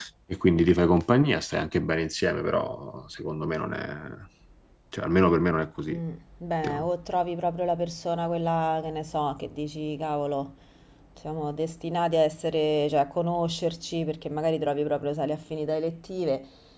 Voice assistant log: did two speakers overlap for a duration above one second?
No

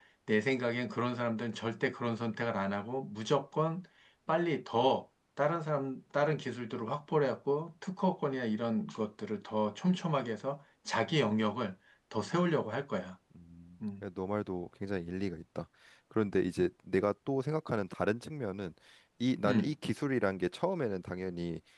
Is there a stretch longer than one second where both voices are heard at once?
No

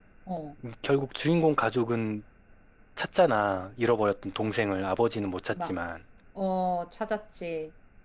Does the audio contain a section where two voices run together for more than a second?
No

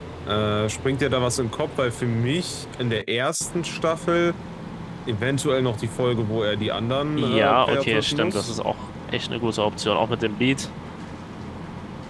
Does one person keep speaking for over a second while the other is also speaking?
Yes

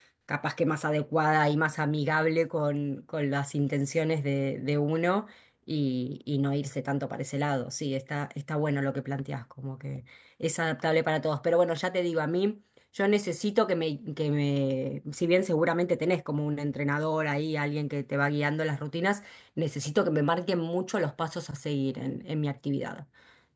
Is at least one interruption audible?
No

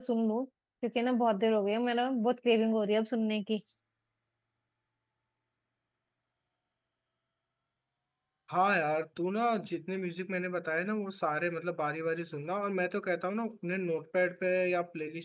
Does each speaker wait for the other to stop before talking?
Yes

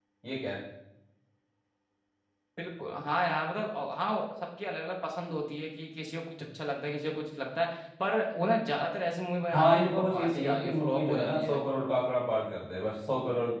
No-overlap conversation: No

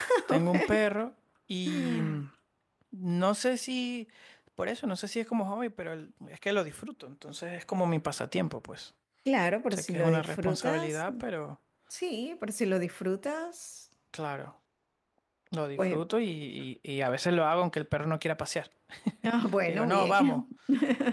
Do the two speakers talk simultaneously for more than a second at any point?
Yes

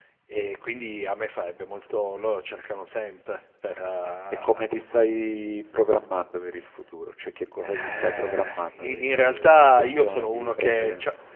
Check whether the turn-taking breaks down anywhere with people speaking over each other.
Yes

